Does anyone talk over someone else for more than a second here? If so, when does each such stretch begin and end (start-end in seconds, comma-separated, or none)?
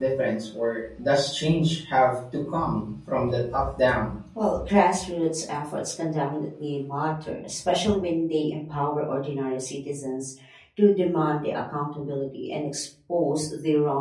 none